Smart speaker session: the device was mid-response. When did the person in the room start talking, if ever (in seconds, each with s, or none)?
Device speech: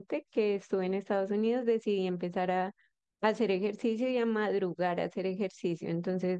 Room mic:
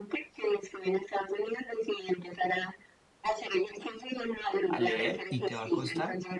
4.7 s